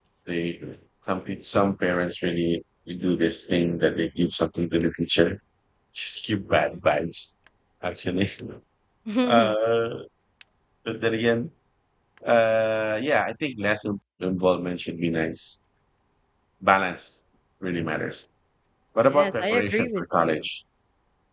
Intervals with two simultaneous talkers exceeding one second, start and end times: 19.0-20.4

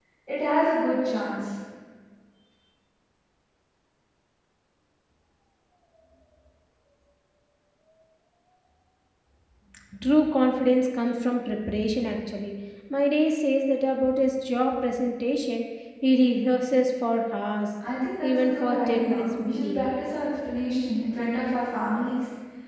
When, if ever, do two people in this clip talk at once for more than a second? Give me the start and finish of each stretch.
18.2-19.9

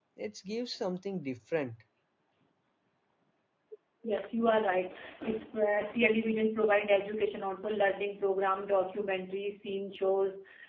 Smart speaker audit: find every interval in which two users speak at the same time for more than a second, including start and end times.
none

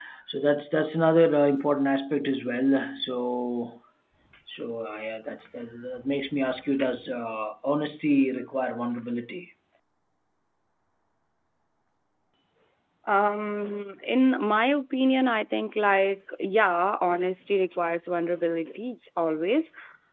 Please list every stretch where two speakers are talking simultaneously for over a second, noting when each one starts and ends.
none

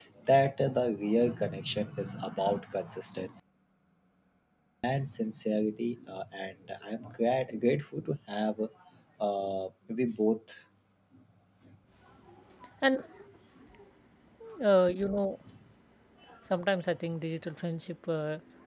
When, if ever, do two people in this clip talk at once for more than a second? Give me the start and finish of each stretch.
none

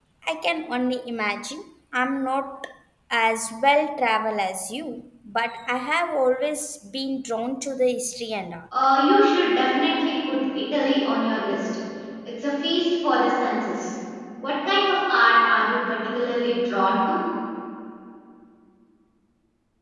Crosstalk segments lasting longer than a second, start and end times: none

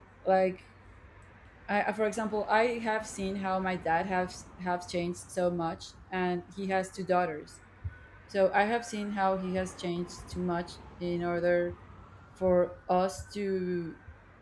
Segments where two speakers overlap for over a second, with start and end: none

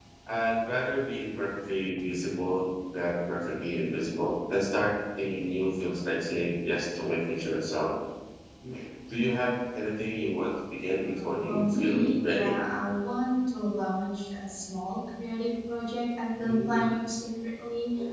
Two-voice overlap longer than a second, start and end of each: 11.0-12.6

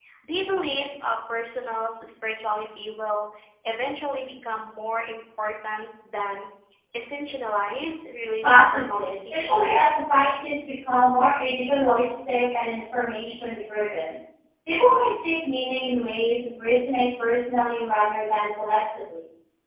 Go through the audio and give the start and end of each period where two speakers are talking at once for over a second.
8.4-9.8

